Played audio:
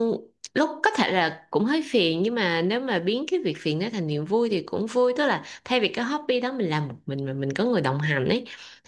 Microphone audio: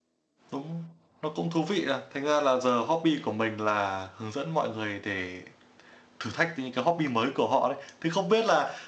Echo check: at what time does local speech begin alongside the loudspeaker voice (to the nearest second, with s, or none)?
1 s